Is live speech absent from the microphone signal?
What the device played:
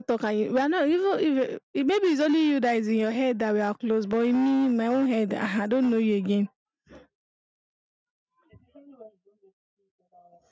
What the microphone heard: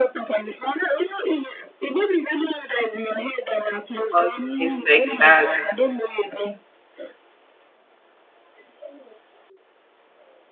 No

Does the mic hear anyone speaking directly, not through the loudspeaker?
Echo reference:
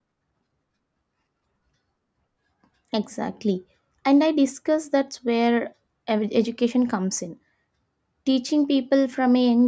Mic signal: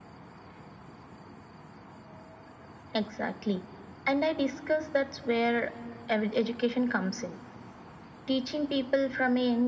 No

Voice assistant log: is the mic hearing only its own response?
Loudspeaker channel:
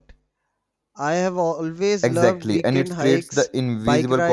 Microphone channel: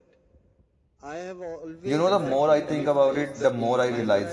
No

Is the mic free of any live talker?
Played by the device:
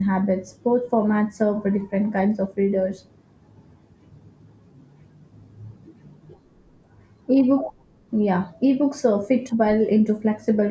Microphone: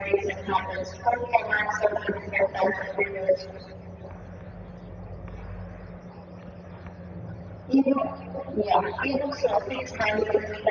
Yes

